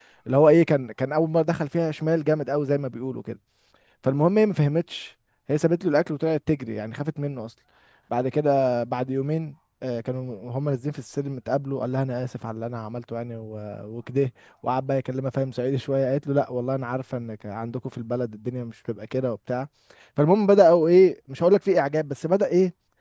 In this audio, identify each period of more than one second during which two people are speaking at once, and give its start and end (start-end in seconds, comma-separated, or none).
none